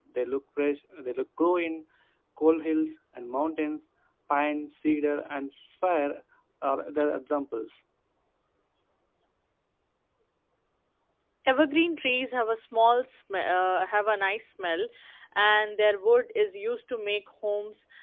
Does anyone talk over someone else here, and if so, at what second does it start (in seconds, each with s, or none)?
none